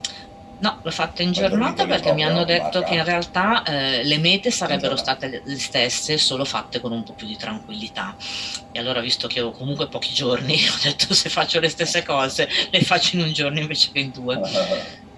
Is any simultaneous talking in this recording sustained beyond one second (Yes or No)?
Yes